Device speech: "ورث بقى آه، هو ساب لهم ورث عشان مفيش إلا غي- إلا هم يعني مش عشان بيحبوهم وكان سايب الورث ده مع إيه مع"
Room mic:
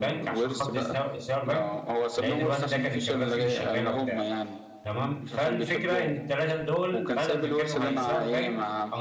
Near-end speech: present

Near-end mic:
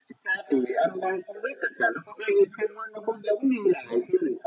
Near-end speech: none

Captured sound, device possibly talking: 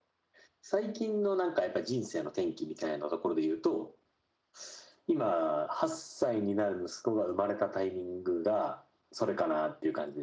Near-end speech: none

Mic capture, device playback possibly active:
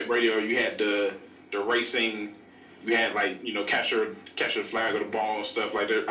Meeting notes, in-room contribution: none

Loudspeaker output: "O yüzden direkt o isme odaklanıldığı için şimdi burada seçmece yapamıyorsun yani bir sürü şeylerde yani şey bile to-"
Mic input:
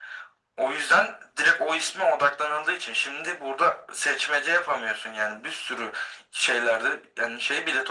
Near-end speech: none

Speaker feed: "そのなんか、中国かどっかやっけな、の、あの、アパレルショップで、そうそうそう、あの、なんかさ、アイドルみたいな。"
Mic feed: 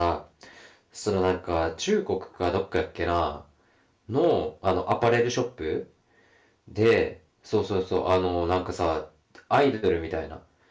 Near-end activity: none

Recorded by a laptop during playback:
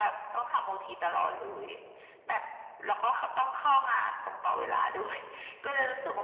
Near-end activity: none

